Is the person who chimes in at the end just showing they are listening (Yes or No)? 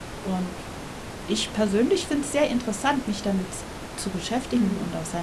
Yes